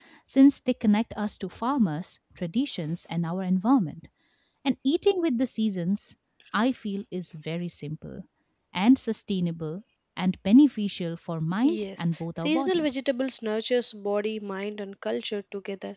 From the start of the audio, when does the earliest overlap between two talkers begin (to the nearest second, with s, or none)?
12 s